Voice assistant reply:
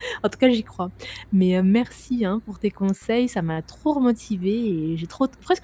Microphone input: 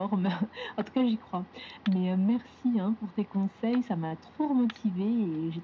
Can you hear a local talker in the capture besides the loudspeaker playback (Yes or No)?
No